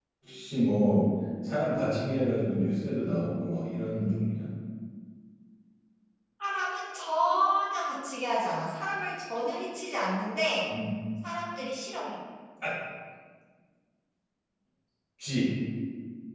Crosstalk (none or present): none